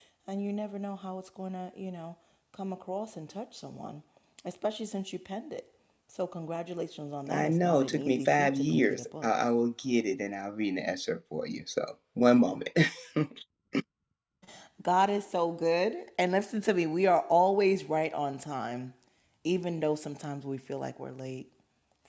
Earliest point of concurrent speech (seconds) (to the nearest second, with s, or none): 7 s